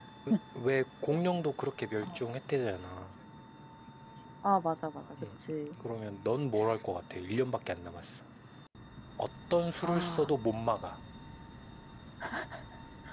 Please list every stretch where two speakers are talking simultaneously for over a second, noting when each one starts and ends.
none

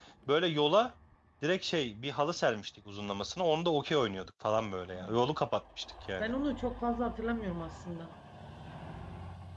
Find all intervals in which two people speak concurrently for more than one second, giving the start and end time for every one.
none

